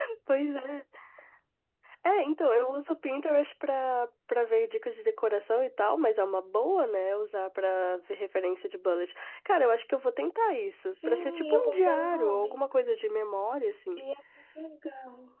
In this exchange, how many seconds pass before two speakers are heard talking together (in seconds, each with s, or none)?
10.9 s